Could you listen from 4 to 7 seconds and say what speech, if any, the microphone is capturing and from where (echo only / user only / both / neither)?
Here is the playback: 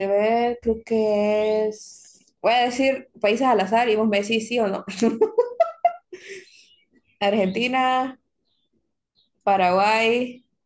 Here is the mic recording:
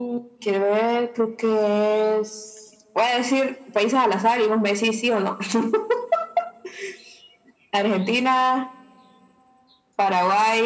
echo only